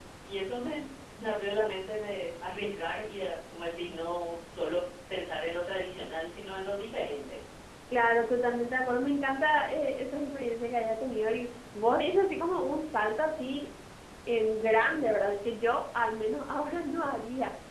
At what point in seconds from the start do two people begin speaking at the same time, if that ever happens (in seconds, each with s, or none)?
none